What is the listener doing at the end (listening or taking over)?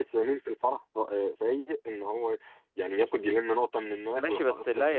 taking over